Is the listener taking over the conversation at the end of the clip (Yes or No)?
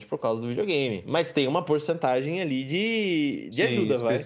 Yes